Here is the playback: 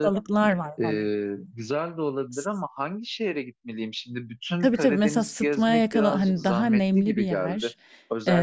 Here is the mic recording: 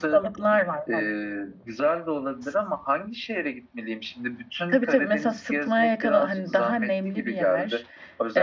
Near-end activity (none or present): none